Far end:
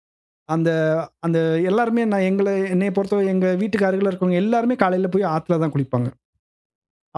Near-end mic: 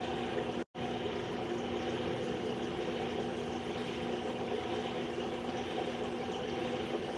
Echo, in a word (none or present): none